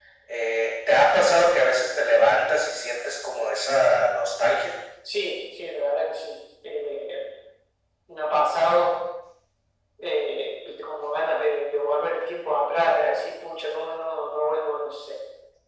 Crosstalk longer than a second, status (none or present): none